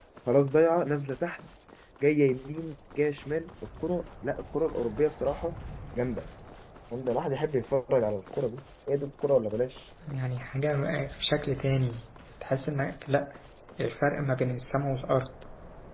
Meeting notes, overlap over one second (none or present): none